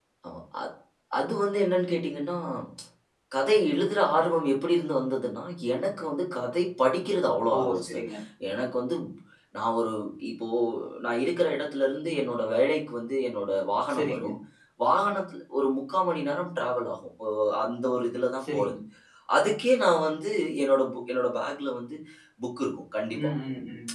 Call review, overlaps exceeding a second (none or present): none